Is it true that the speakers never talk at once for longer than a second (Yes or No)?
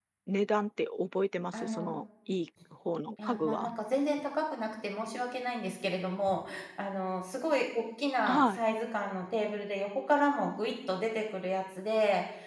Yes